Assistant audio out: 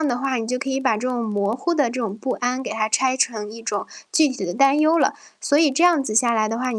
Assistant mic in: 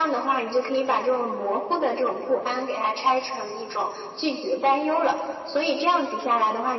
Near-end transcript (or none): none